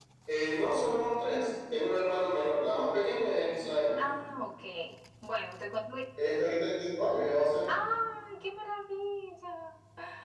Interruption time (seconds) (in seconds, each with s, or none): none